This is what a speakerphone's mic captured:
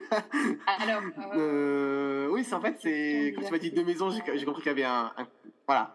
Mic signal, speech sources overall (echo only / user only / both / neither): echo only